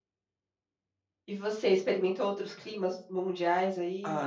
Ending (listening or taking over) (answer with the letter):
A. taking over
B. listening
A